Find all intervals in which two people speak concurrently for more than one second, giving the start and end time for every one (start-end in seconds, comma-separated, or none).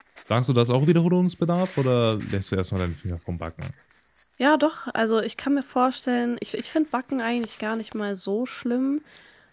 none